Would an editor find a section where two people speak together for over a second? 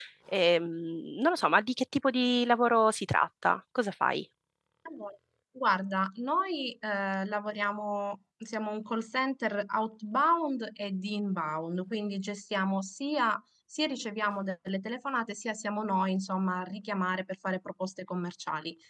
No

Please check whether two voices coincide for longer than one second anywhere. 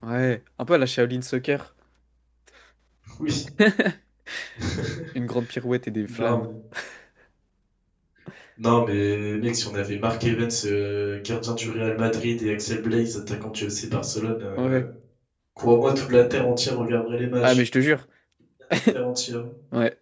No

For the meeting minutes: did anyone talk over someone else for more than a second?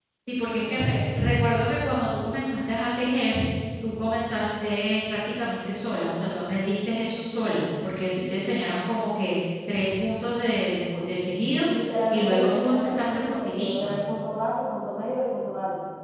Yes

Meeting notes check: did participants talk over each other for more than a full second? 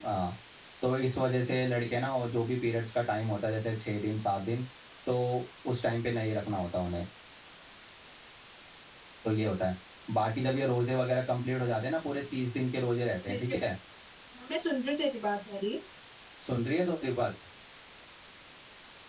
No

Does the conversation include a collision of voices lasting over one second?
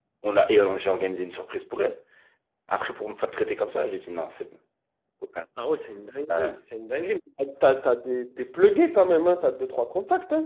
No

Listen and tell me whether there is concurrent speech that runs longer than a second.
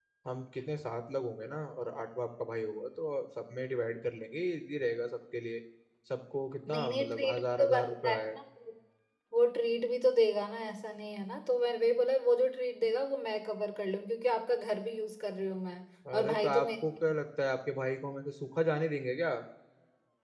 Yes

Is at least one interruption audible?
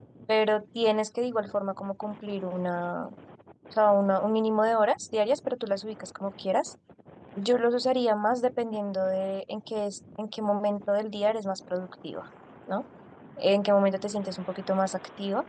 No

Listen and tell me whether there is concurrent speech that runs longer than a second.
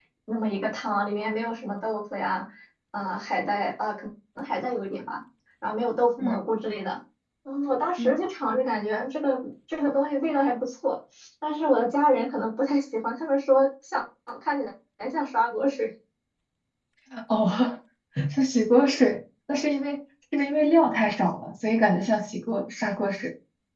No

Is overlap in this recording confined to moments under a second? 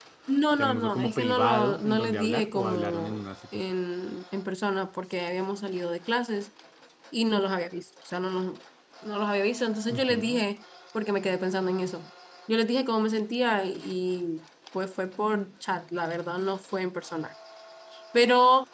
No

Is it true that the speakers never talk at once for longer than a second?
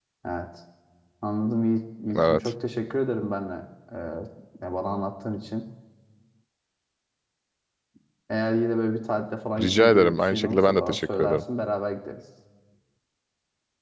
No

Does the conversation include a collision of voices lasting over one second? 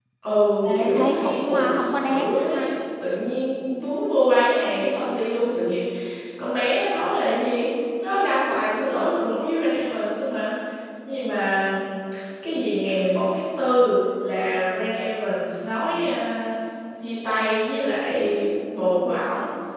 Yes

